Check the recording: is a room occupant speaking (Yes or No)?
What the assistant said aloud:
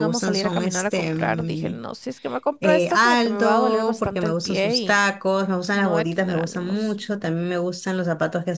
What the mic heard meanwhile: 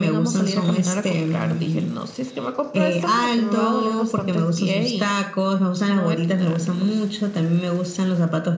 No